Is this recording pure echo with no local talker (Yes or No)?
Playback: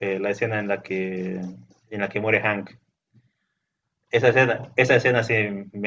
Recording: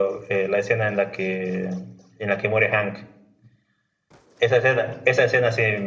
Yes